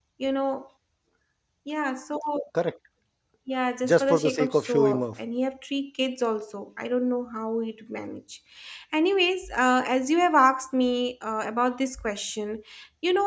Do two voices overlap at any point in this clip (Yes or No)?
Yes